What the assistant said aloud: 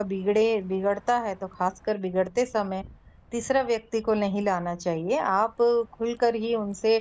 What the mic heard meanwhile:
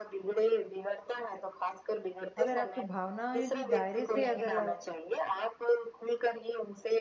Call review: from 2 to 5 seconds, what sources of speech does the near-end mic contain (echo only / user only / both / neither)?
both